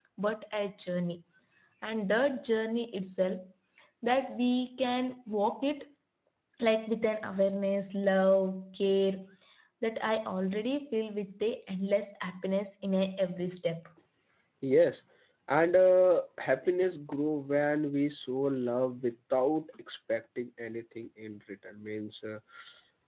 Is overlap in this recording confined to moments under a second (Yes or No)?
Yes